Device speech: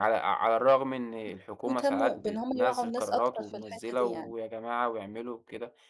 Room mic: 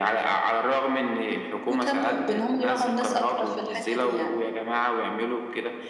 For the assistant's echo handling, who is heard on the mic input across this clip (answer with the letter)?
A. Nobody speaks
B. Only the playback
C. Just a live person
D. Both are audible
B